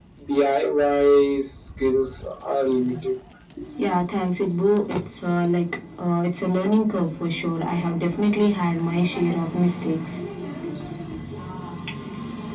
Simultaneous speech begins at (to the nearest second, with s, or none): none